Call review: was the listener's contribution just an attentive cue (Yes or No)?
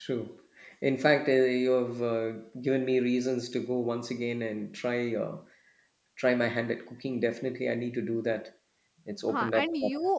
No